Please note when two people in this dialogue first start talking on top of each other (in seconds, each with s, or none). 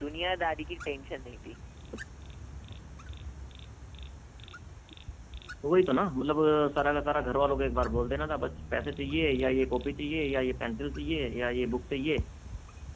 none